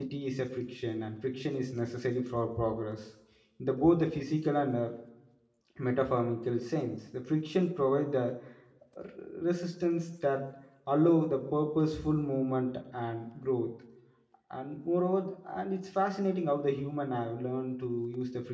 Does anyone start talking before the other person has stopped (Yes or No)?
No